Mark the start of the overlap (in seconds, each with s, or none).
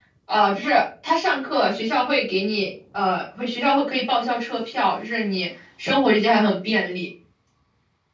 none